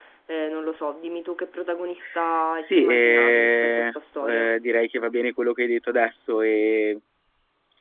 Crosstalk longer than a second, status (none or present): present